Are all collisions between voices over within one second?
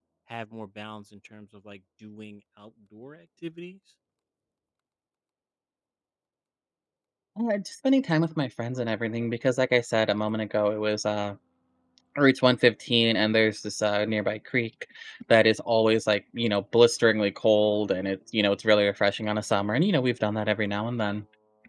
Yes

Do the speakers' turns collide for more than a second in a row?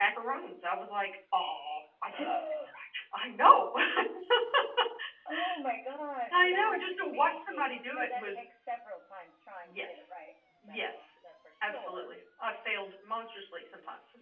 Yes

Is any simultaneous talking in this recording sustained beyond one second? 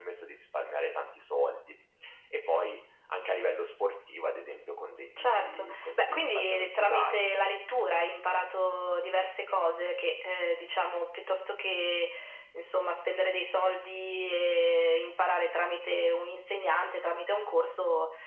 Yes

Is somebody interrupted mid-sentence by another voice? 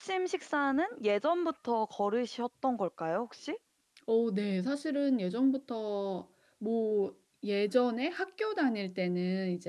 No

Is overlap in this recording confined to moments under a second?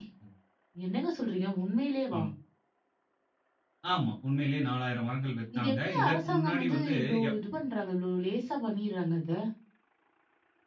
No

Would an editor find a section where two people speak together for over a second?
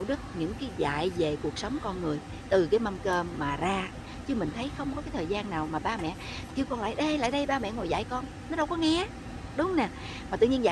No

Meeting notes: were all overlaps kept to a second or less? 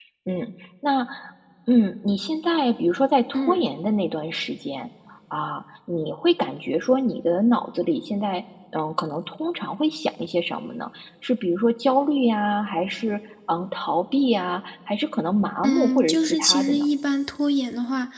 No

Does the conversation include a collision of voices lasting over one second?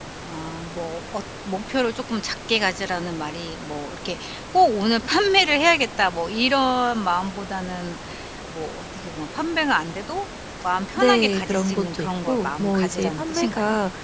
Yes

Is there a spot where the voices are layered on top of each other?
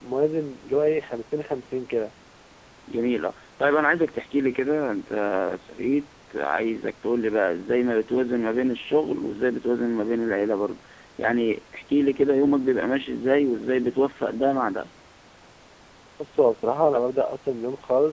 No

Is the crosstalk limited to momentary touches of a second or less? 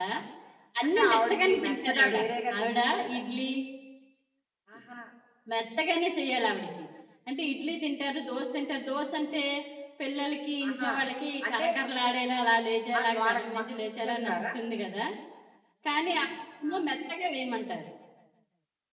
No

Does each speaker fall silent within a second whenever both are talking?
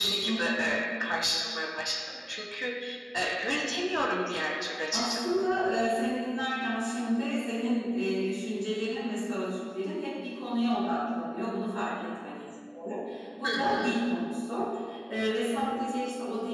Yes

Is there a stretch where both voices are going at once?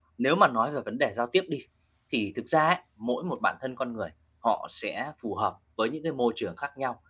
No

